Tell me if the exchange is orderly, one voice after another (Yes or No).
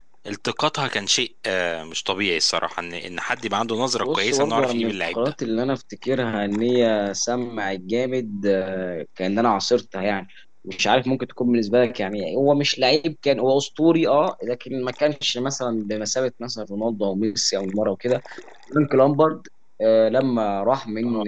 No